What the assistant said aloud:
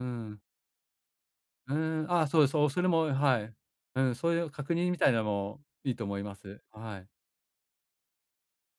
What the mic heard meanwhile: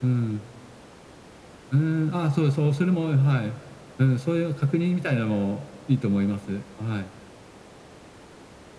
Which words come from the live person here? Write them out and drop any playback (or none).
none